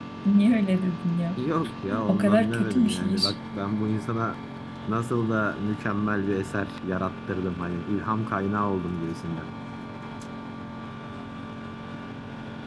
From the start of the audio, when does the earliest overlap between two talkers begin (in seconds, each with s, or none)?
2.1 s